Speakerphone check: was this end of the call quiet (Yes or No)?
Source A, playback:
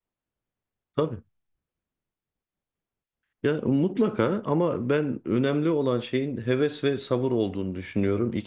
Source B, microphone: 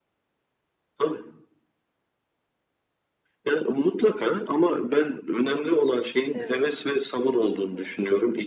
No